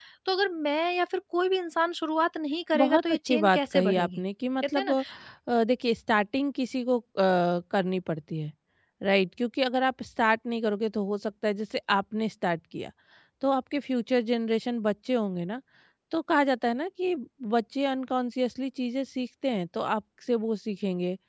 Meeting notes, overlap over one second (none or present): present